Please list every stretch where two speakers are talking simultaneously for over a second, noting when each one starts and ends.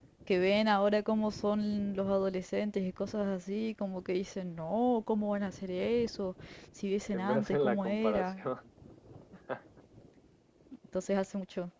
7.1-8.4

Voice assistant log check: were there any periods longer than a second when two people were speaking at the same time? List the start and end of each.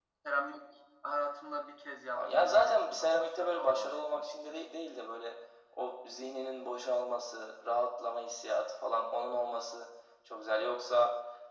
2.1-4.6

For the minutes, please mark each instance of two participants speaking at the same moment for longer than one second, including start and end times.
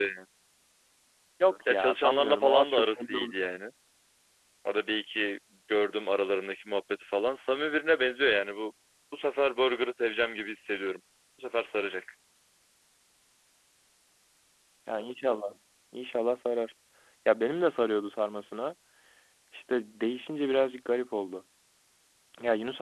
1.7-3.2

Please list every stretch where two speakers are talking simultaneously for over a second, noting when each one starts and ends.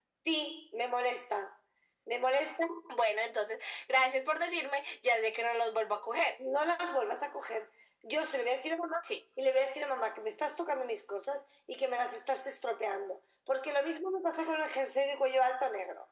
none

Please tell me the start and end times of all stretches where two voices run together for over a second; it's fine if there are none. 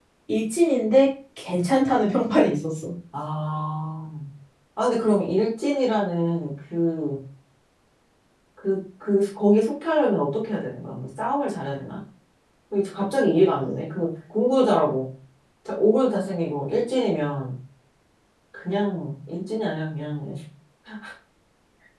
none

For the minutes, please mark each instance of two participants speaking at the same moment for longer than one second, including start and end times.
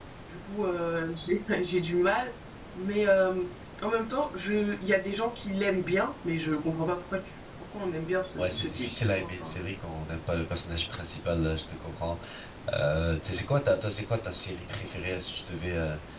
8.4-9.6

